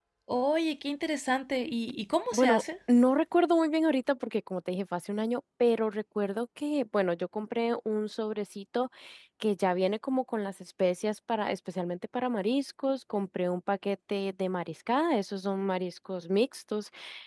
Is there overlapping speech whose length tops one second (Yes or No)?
No